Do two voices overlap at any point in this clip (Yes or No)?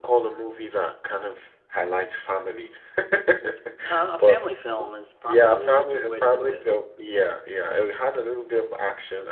Yes